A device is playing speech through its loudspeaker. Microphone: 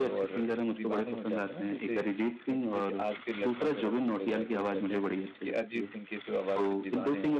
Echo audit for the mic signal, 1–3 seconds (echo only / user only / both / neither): both